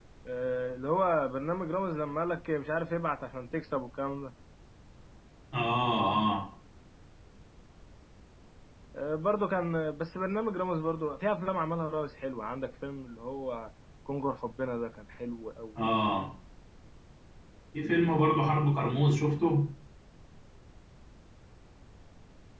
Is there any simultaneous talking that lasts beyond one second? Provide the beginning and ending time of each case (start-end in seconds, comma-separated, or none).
none